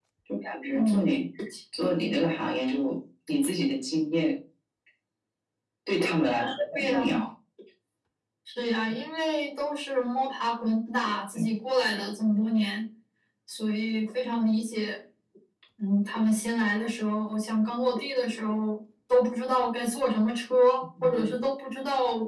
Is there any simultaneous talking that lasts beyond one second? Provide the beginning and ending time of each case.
none

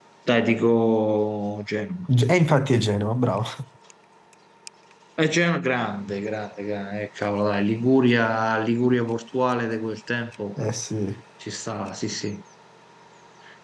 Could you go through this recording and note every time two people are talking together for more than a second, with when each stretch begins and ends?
none

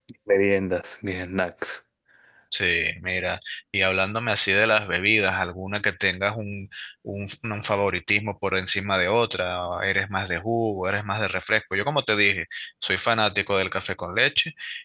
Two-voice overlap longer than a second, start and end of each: none

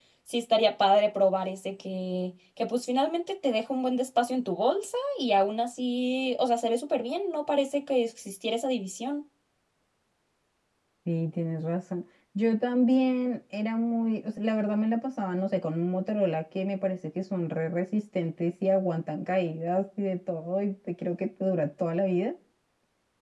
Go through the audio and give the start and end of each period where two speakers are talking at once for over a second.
none

